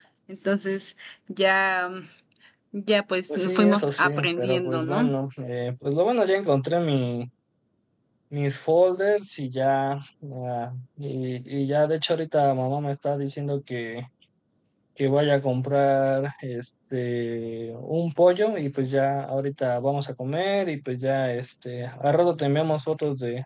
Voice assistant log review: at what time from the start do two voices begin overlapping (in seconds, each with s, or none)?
3.3 s